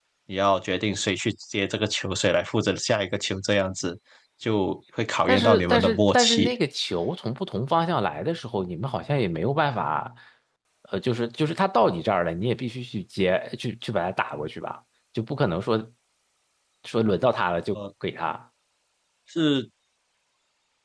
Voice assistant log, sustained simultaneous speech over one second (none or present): present